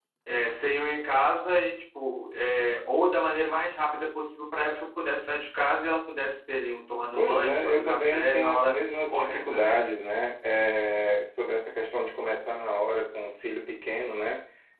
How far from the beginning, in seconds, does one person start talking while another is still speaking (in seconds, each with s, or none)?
7.1 s